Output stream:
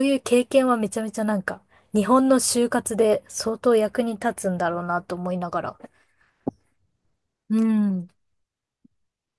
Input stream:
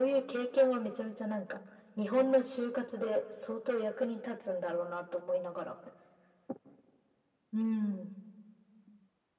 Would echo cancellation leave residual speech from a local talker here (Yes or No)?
No